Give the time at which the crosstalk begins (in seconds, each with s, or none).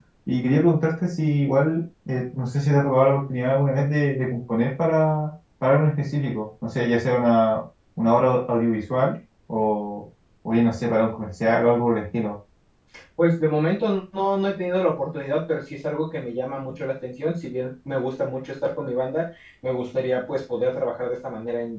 none